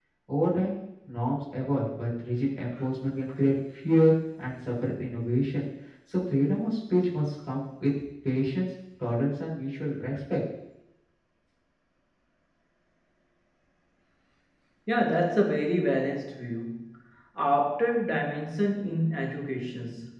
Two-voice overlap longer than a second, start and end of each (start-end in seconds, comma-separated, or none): none